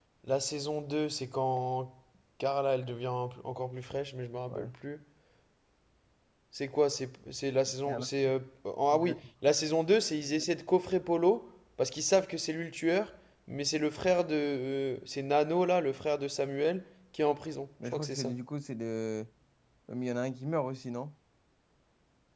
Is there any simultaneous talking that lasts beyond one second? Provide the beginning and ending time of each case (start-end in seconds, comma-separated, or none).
none